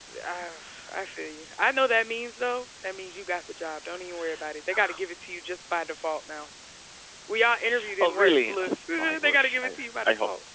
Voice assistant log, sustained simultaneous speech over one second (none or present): present